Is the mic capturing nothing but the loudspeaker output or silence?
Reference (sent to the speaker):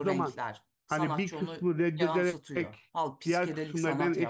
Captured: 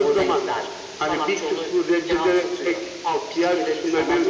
Yes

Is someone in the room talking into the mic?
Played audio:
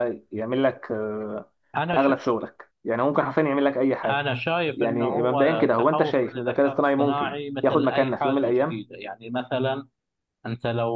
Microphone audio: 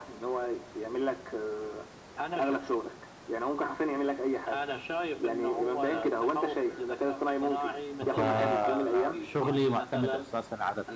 Yes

